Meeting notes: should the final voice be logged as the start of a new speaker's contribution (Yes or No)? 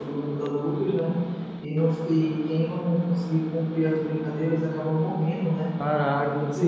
Yes